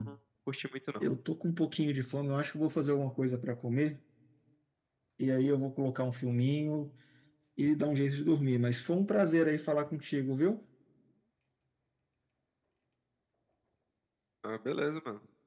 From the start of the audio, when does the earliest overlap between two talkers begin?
none

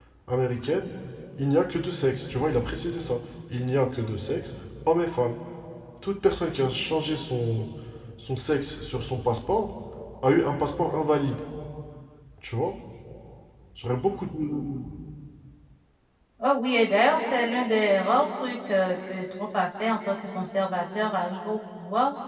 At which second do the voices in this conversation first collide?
none

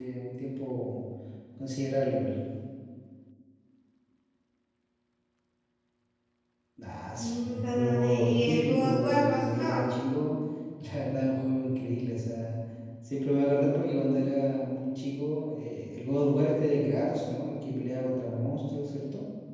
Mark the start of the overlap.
7.2 s

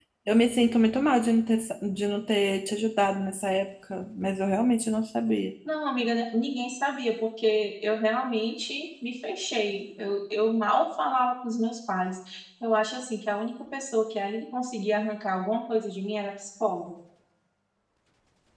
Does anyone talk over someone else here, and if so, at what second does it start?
none

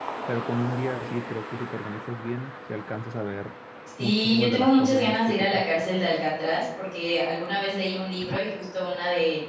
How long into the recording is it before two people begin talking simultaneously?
4.0 s

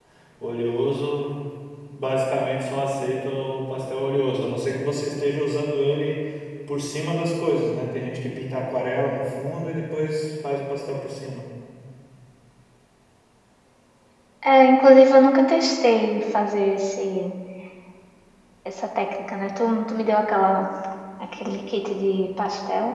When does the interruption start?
none

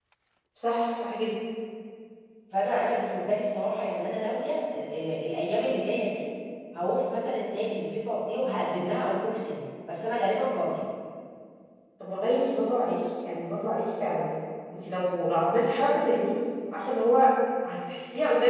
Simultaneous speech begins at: none

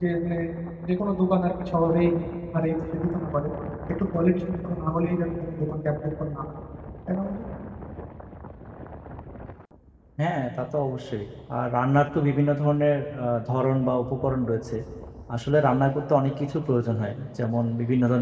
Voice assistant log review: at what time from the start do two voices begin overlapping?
none

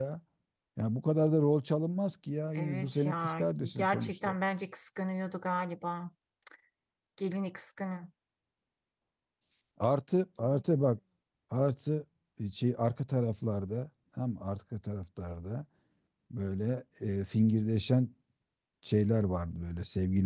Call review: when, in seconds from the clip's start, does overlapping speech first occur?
2.6 s

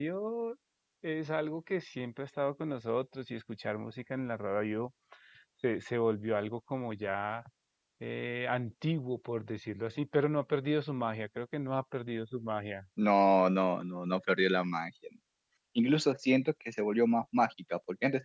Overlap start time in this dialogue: none

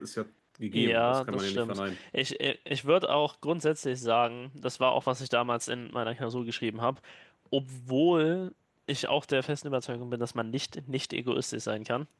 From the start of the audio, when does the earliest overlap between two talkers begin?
0.7 s

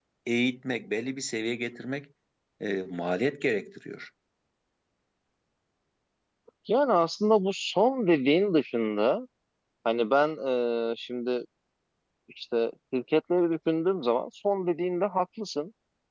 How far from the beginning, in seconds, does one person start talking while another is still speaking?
none

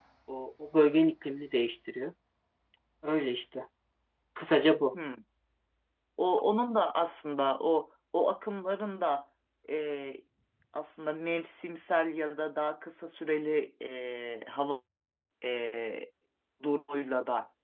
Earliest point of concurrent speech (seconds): none

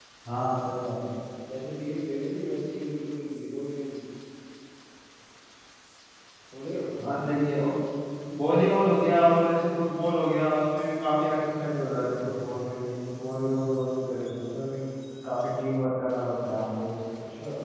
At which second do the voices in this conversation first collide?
none

